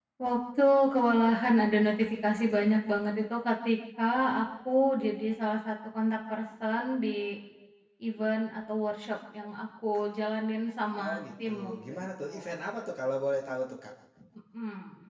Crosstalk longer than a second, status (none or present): present